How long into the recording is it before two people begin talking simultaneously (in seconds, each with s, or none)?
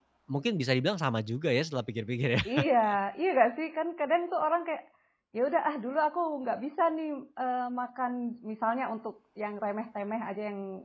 none